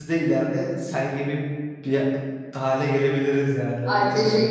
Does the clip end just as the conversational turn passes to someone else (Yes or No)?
Yes